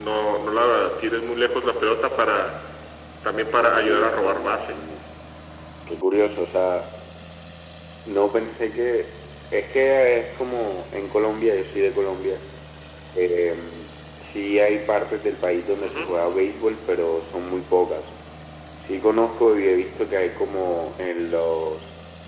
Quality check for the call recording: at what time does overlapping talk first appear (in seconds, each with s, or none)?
3.6 s